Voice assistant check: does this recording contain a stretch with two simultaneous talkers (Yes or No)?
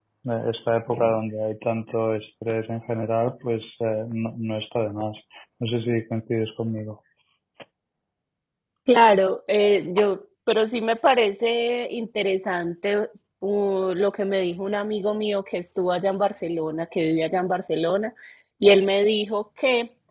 No